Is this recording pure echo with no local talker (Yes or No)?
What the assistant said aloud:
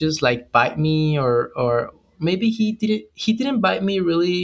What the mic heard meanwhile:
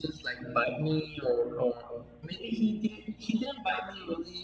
Yes